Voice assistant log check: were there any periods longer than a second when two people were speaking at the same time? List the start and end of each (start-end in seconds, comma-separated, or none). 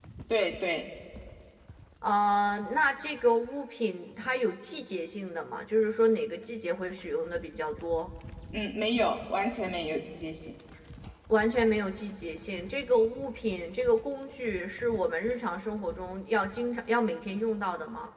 none